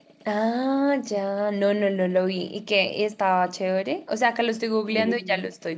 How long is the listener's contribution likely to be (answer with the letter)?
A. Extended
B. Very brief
B